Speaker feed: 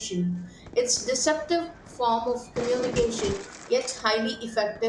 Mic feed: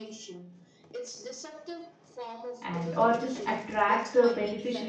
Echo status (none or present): present